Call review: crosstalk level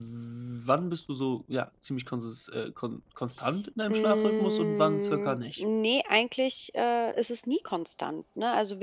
present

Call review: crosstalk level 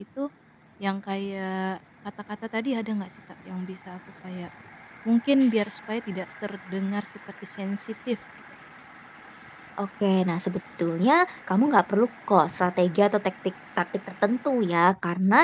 none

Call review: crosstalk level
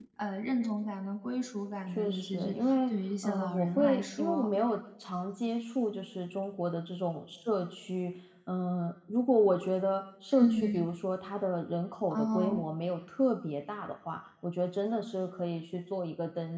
present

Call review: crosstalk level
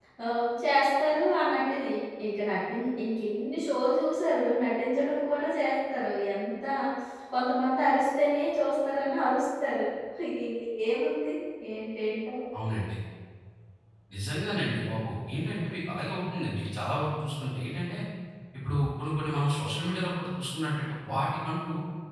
none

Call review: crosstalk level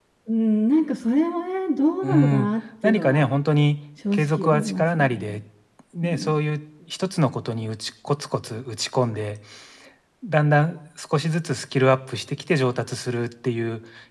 present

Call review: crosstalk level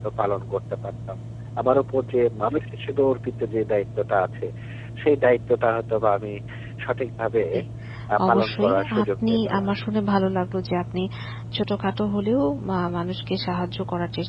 present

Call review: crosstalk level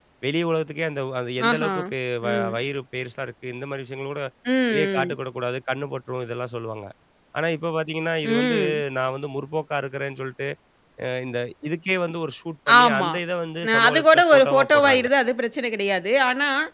present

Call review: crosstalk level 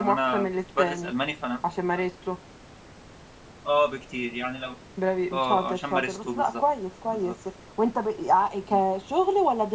present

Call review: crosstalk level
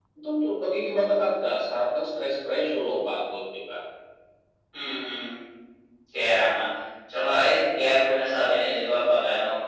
none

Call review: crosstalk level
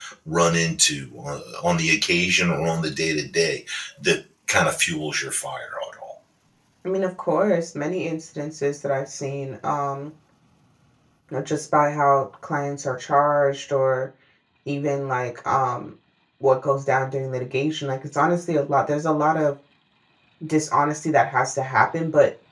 none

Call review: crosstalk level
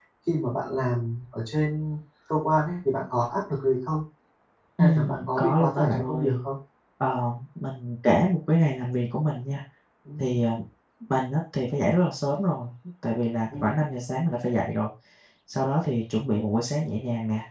present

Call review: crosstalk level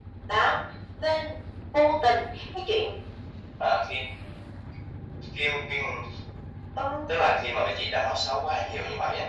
none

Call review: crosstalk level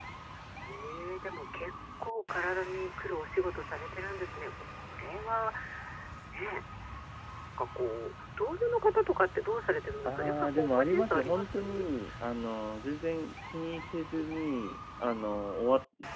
present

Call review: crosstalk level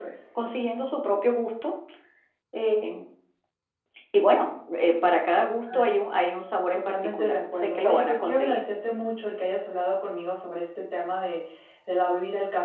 present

